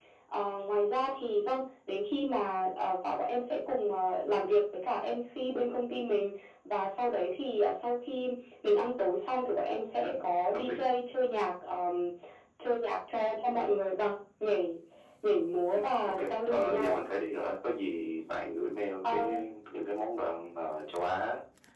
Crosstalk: present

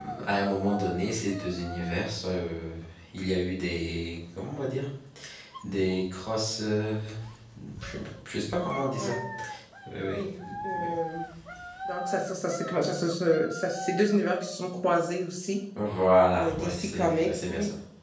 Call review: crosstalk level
present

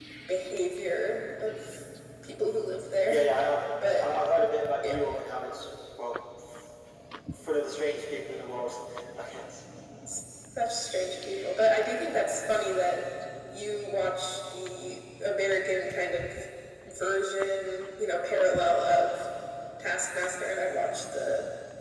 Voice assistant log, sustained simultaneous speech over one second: none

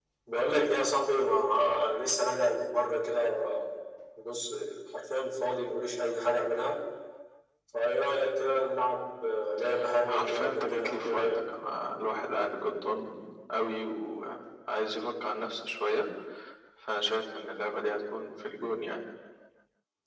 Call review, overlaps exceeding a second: present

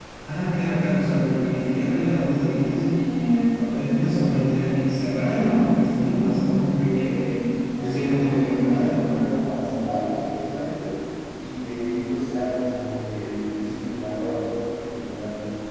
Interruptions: present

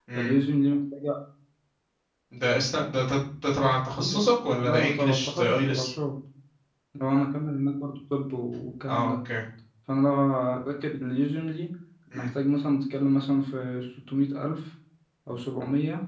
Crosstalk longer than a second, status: present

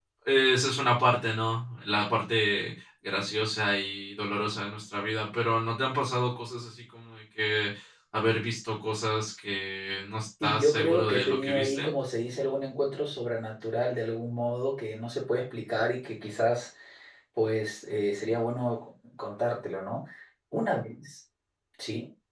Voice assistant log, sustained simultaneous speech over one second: present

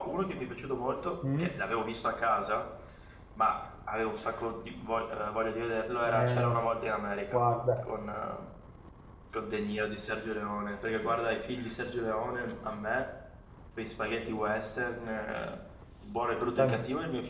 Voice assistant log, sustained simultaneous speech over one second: none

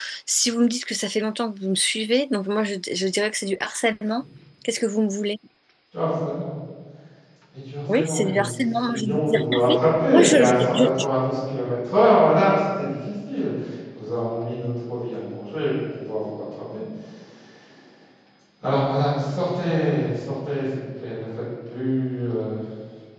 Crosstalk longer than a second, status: present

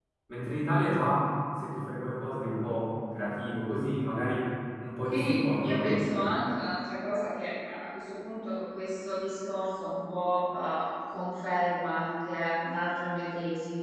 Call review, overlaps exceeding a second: present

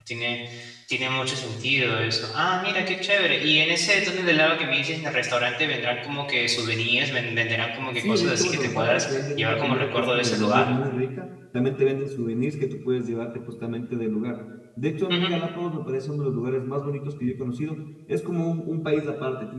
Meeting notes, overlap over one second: present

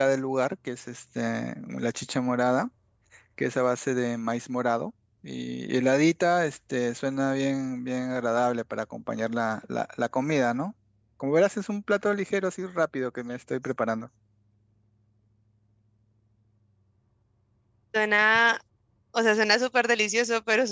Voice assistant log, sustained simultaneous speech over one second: none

